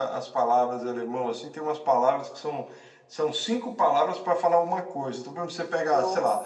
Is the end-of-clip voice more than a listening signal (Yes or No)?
No